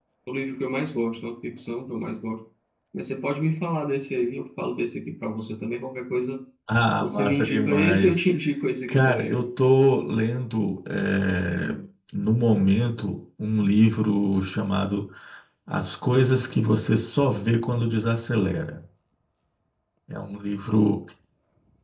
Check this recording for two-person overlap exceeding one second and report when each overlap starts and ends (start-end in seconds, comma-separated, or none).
7.0-8.2